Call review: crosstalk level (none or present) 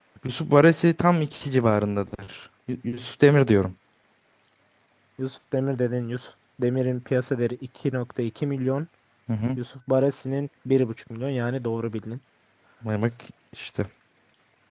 none